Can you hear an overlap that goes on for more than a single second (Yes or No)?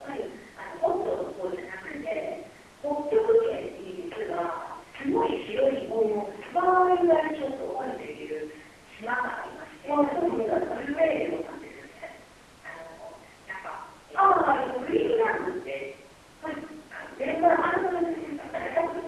Yes